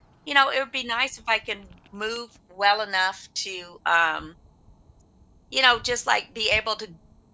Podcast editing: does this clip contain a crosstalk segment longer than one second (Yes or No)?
No